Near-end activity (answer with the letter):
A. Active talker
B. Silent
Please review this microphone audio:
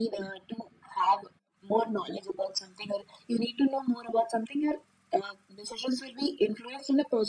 B